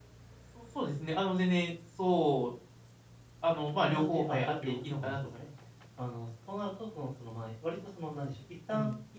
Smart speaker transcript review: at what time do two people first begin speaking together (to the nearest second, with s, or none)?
4 s